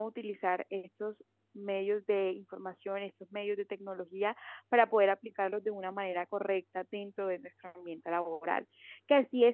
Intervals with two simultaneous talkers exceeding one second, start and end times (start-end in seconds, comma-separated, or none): none